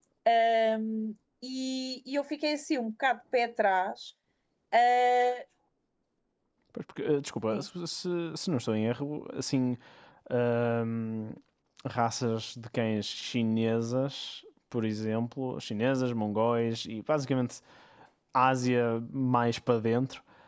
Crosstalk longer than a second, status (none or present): none